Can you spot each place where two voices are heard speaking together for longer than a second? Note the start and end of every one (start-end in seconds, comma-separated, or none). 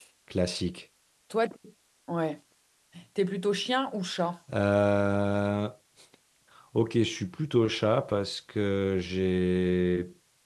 none